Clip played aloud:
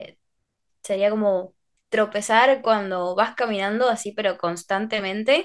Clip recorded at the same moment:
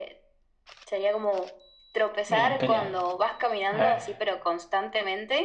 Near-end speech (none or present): present